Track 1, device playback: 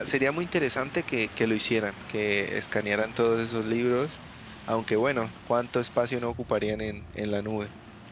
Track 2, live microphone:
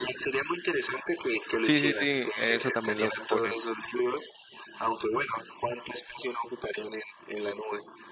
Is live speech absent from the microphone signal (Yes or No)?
No